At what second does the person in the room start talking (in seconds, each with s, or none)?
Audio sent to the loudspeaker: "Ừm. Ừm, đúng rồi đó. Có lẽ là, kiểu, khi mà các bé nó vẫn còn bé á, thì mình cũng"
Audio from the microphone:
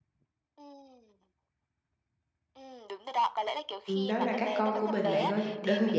3.9 s